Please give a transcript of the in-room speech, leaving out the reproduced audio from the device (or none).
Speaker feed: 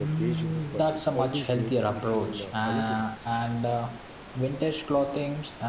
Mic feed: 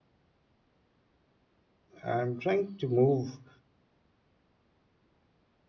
I'm trying to move